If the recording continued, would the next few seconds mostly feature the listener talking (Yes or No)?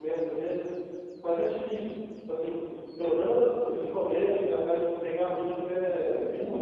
Yes